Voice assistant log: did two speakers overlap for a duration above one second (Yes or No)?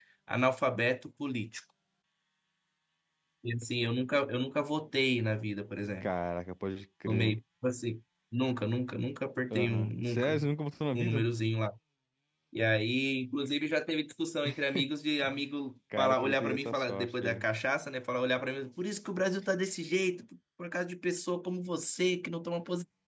Yes